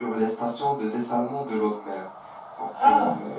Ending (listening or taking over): taking over